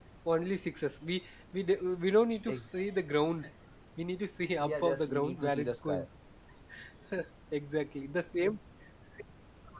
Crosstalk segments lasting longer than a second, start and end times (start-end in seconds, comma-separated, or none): 4.6-6.0